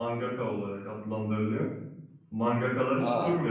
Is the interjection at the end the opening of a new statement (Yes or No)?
No